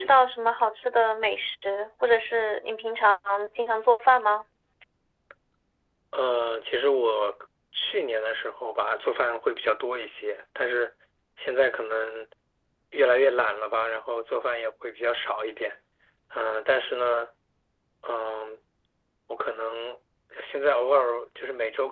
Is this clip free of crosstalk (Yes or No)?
Yes